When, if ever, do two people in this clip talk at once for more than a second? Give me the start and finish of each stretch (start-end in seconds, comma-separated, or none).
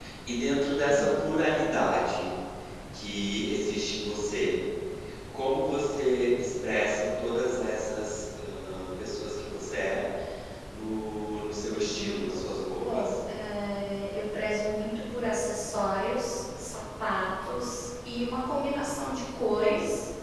none